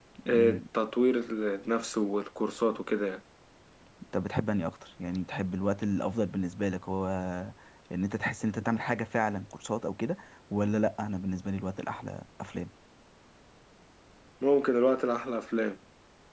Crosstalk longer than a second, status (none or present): none